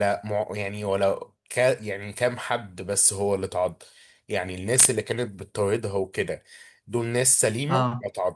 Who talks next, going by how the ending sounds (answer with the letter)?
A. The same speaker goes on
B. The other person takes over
A